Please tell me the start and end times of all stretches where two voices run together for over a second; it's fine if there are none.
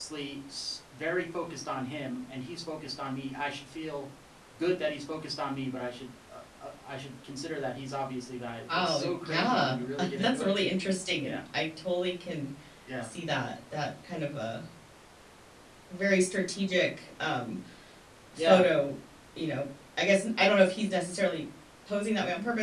8.7-10.5

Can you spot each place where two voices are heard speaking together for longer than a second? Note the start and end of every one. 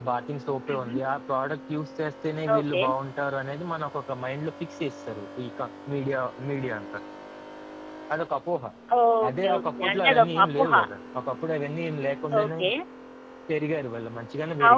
9.3-10.7

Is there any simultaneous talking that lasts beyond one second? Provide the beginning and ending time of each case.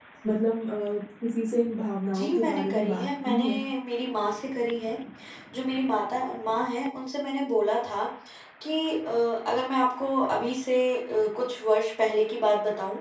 2.2-3.6

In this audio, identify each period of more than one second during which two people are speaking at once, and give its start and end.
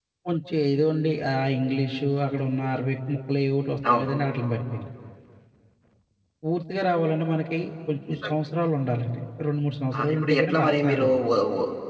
10.0-11.2

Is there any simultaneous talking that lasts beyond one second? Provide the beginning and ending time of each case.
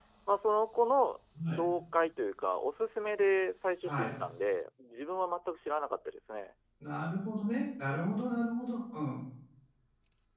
none

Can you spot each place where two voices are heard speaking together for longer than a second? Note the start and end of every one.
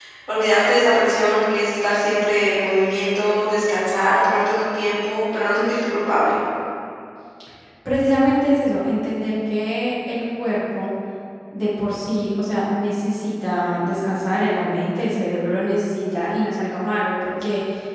none

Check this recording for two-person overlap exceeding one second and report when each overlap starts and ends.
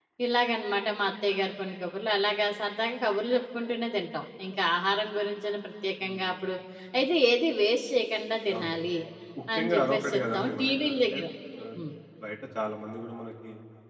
9.5-11.2

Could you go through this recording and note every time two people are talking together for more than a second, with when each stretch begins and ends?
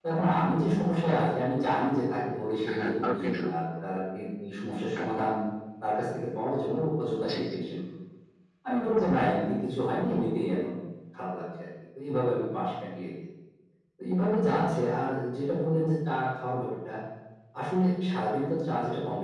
2.7-3.9

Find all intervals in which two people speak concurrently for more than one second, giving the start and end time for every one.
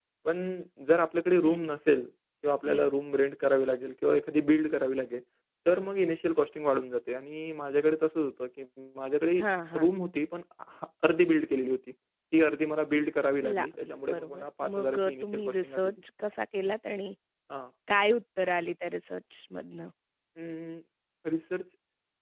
13.4-15.9

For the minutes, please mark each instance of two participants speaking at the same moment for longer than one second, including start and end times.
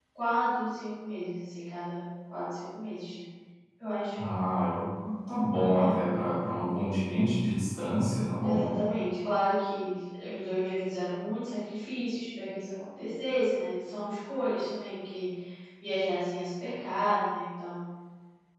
none

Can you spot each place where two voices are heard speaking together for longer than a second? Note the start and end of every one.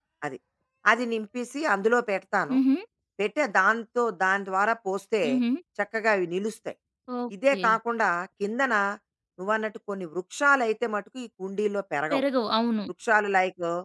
none

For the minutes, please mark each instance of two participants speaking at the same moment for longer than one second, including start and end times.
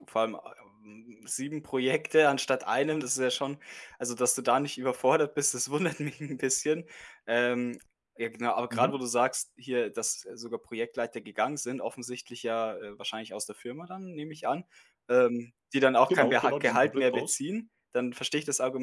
16.1-17.4

